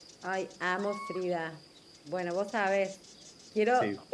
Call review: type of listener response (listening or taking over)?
listening